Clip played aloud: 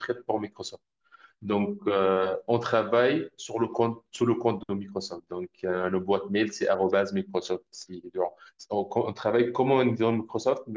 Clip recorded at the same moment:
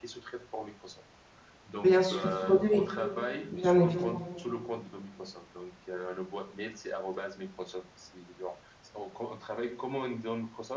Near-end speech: present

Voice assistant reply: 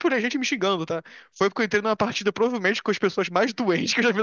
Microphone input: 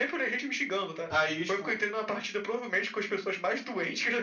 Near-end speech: present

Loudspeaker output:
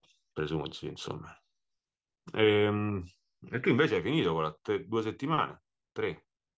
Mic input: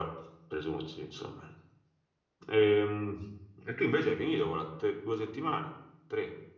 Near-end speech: none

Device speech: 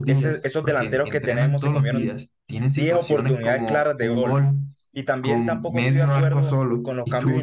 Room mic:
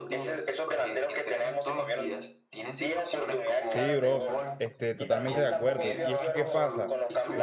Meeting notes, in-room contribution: present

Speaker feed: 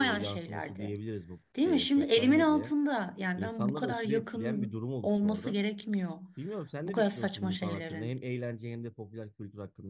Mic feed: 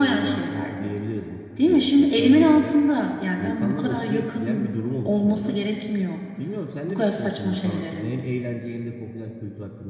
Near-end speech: none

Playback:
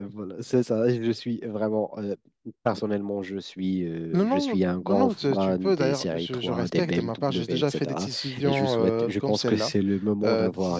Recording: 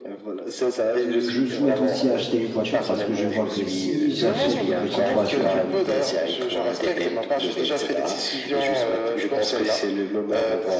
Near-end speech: present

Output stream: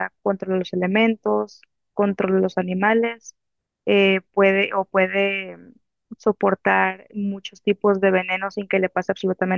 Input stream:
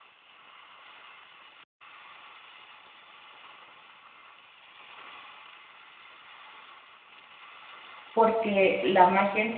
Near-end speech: present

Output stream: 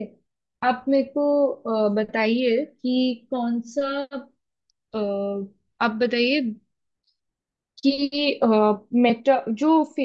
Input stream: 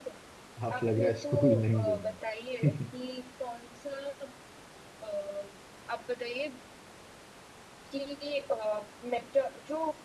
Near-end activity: present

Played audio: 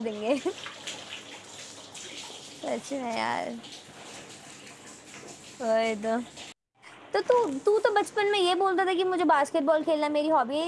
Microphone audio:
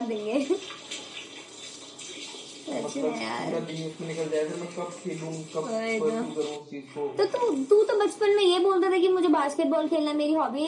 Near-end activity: present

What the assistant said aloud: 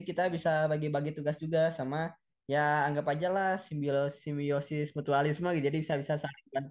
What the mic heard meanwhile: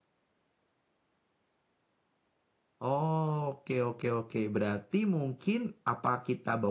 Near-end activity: present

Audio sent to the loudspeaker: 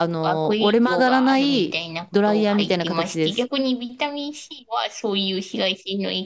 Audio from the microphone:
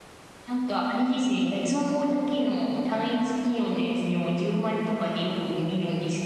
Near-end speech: present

